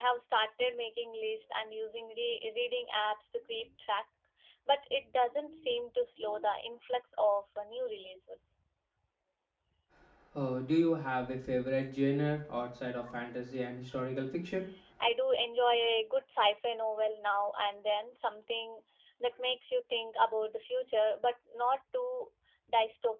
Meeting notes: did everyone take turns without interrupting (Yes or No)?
Yes